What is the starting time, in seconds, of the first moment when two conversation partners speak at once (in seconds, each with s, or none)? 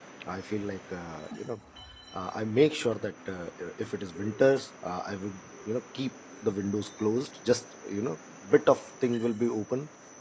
none